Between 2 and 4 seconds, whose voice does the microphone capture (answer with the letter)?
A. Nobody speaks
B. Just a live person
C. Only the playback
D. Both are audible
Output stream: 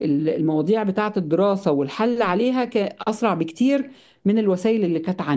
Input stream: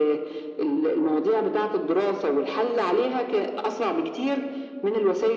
C